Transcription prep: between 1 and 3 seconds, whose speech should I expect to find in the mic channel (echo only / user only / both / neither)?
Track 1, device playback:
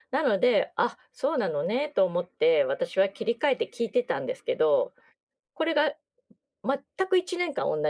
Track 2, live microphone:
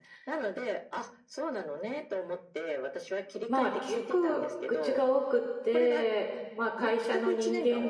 echo only